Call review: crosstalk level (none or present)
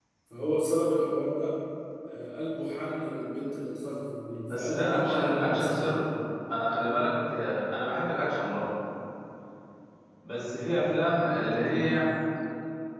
present